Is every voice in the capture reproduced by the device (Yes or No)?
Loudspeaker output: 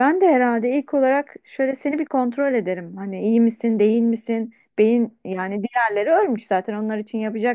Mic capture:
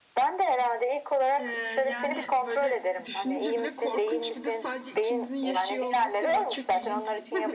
No